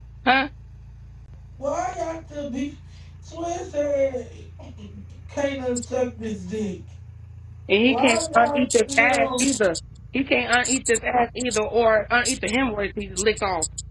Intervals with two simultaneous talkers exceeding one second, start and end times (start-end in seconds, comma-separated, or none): 7.8-9.5